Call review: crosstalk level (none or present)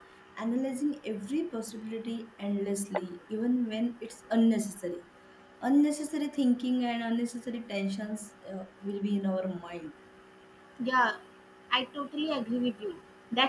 none